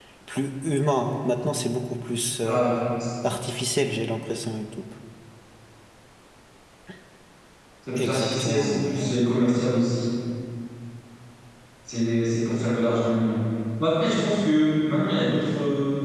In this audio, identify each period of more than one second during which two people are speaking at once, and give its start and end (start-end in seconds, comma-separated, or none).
8.0-9.5